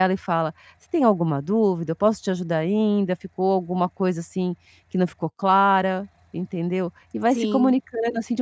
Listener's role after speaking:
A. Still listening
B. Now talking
A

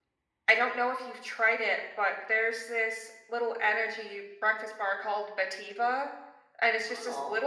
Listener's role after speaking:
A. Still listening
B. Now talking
A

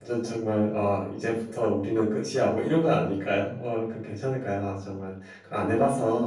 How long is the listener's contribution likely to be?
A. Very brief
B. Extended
B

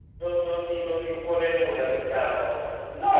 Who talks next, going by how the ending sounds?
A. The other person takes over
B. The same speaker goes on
A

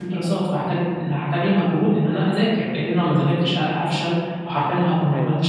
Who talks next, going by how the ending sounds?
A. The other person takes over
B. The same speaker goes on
B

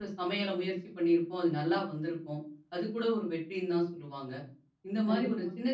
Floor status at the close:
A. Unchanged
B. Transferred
A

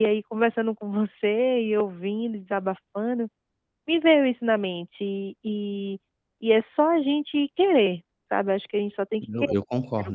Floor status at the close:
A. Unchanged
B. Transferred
B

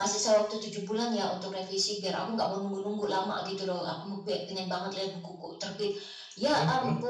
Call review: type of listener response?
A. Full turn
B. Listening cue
B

